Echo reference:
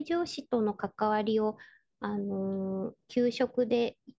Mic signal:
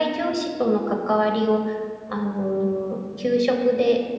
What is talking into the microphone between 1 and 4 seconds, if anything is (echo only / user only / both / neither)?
echo only